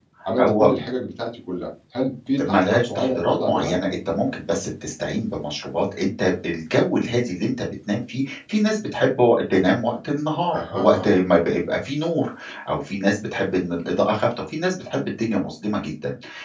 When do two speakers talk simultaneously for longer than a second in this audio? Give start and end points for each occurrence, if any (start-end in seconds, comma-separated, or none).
2.4-3.8